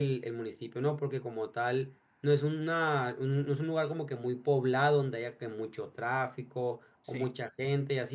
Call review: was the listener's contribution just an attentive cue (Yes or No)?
Yes